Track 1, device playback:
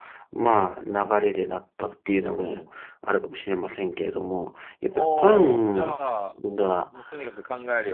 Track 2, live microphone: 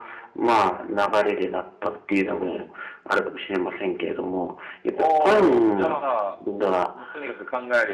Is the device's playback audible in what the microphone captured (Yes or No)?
Yes